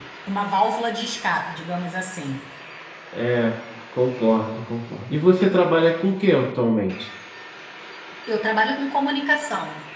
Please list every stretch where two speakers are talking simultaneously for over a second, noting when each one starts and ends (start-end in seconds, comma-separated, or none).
none